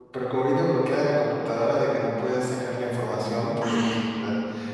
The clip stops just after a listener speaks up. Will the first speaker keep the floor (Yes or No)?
Yes